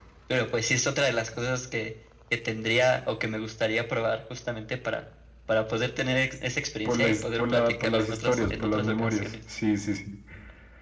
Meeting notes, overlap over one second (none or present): present